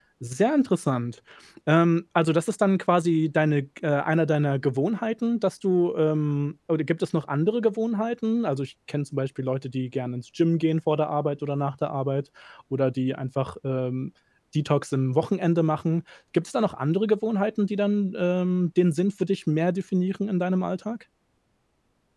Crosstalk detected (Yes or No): No